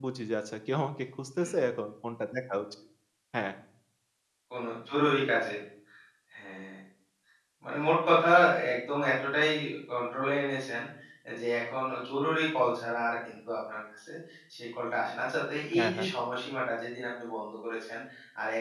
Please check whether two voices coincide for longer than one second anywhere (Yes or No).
No